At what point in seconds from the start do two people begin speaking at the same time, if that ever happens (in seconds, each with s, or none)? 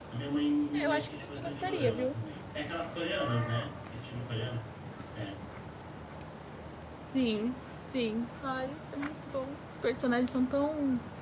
0.7 s